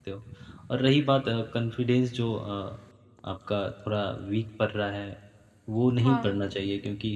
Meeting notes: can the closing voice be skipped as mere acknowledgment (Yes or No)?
Yes